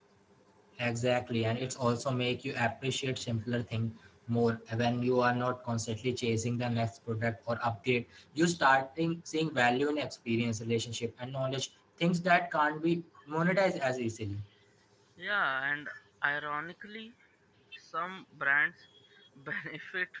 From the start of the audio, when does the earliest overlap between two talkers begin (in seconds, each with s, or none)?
none